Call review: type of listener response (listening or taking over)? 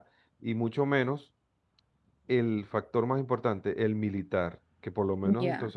listening